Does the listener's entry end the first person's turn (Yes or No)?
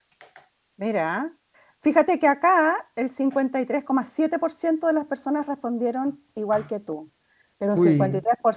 No